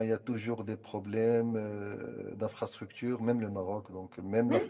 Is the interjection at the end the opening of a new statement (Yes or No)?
Yes